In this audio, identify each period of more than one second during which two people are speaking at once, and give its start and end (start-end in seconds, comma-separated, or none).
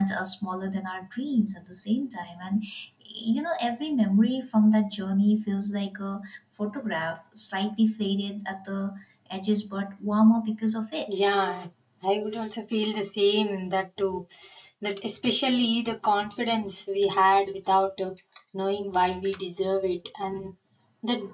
none